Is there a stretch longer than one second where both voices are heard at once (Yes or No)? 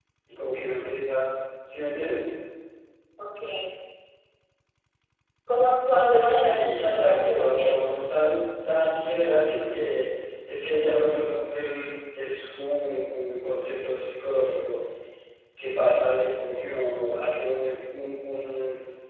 Yes